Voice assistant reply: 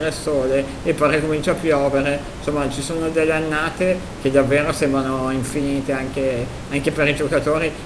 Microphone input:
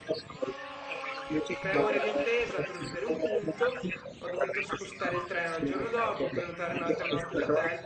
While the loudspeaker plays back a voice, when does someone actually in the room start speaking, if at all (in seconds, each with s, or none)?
1.6 s